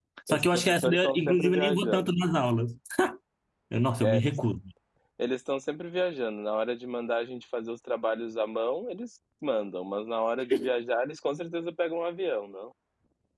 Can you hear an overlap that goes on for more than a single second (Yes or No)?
Yes